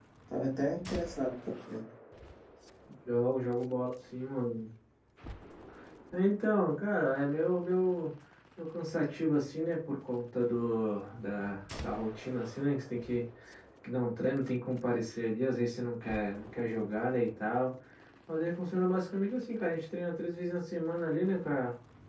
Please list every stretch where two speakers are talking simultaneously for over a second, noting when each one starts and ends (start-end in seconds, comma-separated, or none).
none